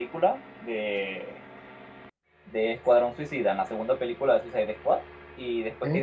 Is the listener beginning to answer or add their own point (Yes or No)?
No